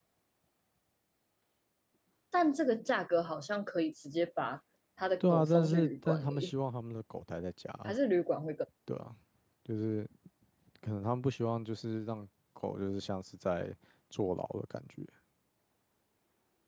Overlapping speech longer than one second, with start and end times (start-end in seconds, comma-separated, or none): 5.2-6.5